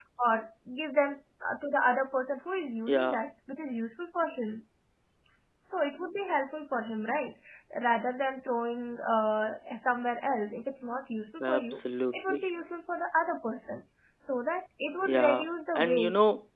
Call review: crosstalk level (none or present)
present